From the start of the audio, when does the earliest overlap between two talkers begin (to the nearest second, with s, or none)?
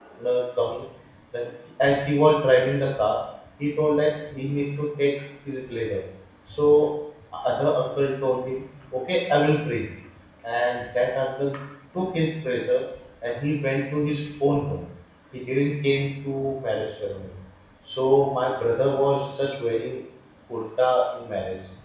none